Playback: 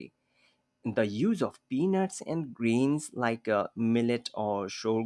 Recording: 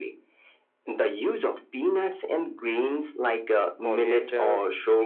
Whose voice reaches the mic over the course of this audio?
both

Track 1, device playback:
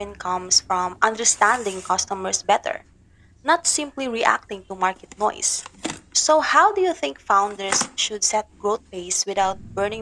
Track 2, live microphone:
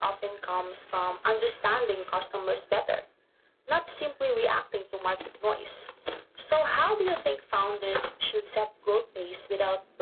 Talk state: echo only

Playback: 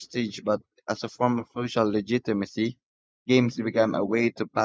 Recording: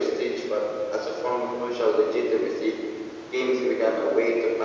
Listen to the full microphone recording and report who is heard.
echo only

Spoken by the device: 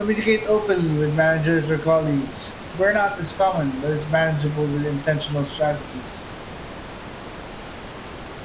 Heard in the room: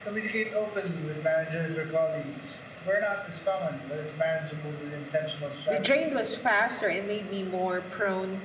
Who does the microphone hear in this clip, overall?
both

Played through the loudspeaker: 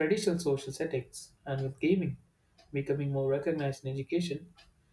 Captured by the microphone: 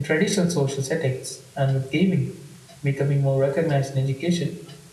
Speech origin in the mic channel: echo only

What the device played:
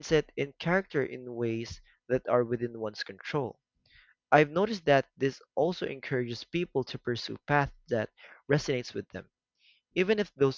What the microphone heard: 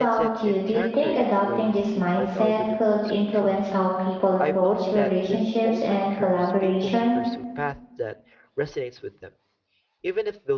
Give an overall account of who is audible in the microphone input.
both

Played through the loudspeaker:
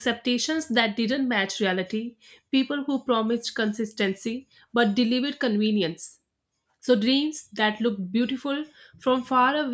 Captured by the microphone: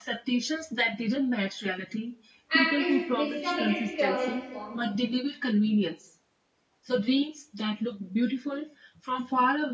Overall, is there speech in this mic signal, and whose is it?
both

